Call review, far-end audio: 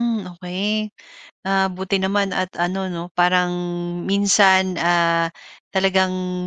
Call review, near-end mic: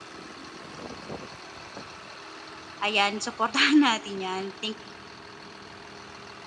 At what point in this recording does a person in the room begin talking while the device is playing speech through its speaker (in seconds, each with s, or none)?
2.8 s